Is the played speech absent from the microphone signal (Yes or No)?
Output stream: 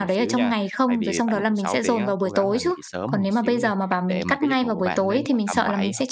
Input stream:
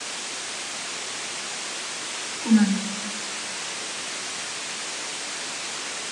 Yes